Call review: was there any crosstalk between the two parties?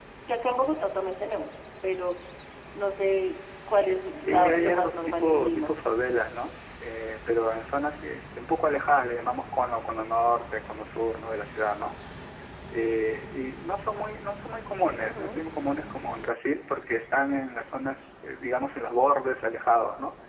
Yes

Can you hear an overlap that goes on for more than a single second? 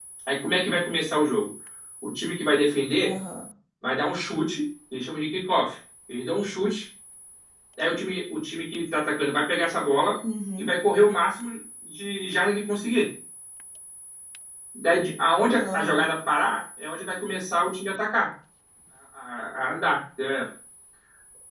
No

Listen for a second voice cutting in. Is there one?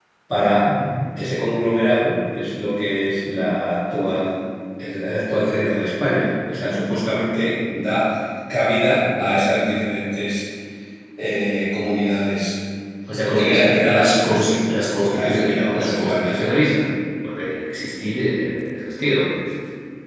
Yes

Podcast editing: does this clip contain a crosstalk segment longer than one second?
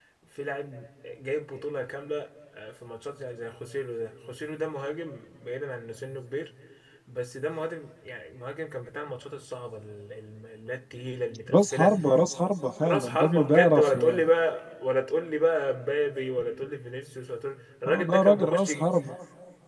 Yes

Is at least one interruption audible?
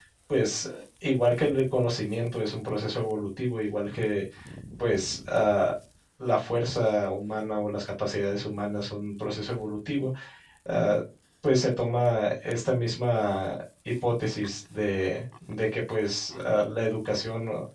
No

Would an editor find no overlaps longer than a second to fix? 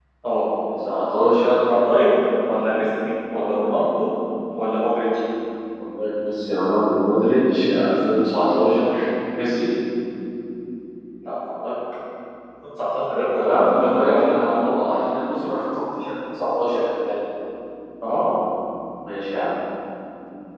No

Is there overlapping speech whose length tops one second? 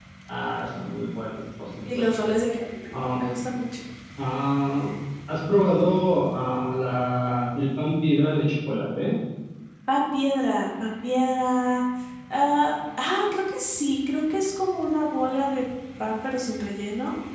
No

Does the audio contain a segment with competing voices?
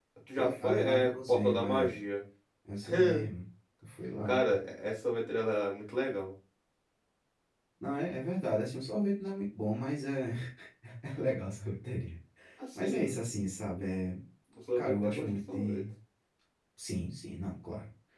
Yes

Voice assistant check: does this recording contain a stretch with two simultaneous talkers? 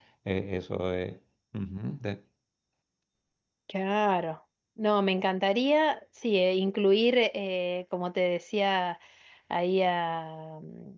No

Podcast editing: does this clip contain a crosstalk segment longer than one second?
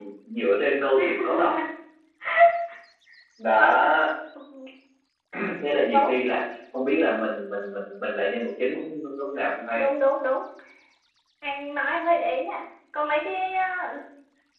No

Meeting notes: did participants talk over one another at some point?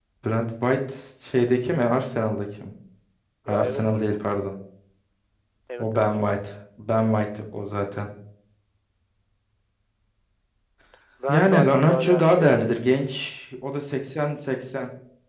Yes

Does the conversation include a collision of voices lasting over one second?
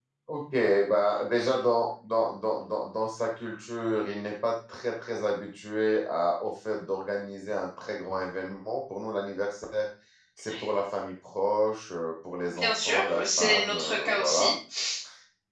Yes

